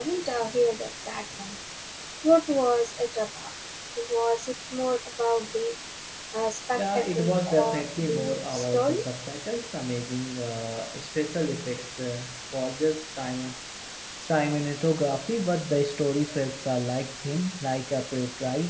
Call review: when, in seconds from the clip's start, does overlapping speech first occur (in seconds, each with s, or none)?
6.8 s